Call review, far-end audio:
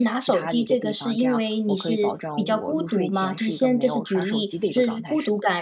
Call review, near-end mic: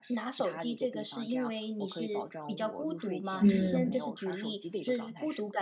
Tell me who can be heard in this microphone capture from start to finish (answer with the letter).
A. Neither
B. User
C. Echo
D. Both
D